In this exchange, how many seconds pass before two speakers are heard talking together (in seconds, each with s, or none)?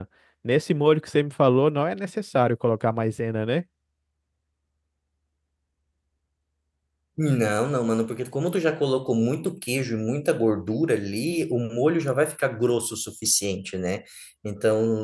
none